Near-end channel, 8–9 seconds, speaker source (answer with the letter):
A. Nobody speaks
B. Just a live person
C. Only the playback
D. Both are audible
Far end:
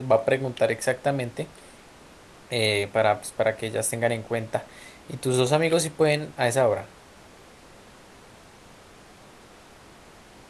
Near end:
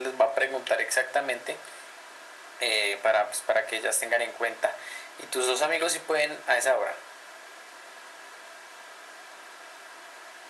A